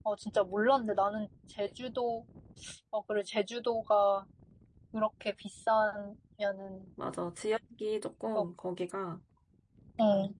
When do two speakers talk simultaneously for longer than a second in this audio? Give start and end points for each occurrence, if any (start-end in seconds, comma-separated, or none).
none